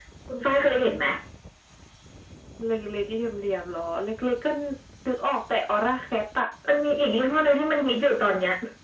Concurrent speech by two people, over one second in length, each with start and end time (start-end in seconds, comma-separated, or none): none